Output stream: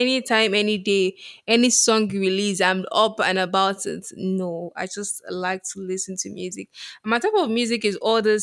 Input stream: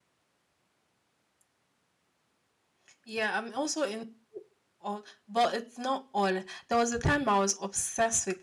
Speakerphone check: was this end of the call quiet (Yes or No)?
No